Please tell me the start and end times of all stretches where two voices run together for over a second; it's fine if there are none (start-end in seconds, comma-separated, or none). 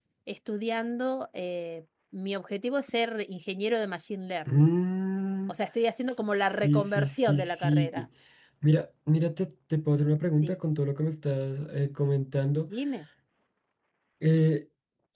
6.6-7.9